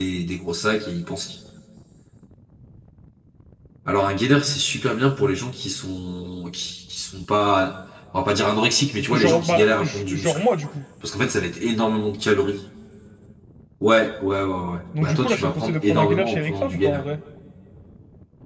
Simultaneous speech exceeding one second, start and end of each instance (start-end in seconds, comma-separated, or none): 9.1-10.4, 15.0-17.0